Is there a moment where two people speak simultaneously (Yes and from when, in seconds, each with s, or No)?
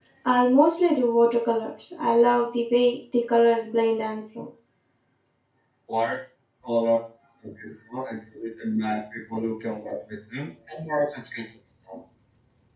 No